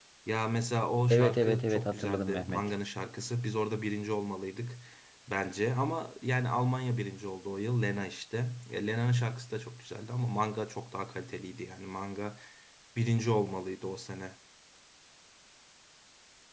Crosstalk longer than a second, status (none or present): present